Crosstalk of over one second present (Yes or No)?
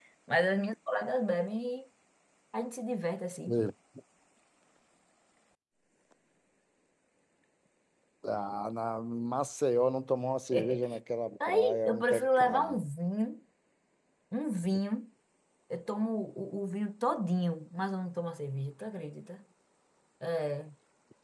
Yes